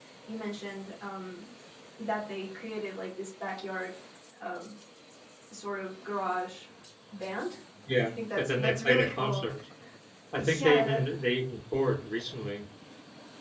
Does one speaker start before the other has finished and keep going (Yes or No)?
Yes